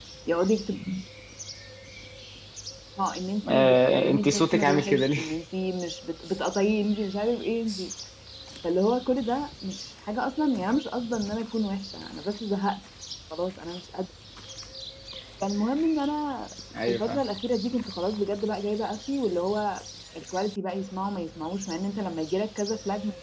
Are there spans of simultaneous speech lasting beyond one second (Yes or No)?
Yes